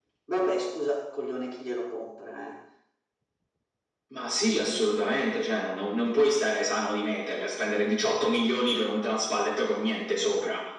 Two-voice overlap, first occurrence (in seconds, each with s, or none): none